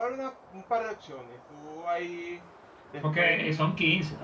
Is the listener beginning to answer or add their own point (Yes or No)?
Yes